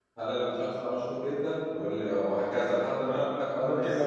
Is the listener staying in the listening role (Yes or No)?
No